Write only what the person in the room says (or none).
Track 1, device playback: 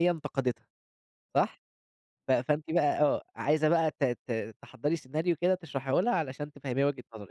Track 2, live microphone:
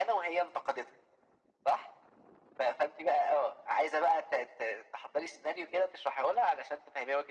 none